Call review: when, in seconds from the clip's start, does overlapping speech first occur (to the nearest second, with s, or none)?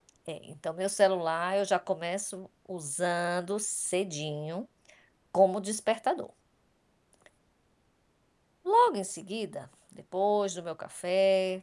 none